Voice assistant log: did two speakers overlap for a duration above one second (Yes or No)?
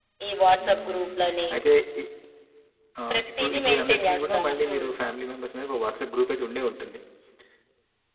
Yes